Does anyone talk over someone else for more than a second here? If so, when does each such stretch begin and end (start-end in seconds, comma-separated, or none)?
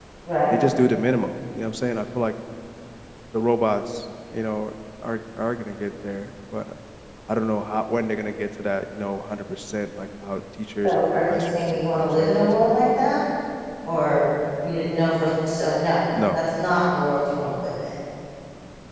10.8-12.4